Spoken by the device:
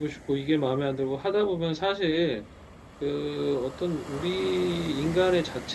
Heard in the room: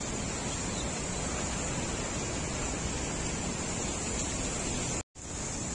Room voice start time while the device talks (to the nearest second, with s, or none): none